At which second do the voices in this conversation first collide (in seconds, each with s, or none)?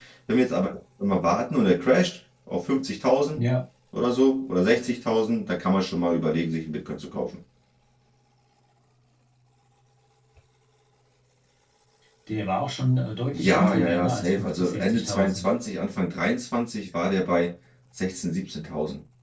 13.3 s